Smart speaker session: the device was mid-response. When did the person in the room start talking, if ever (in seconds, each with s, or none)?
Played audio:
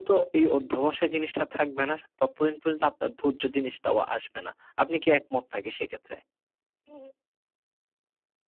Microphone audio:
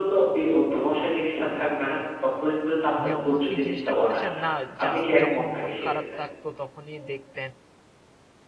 3.0 s